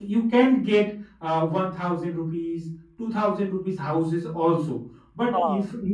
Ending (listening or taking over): listening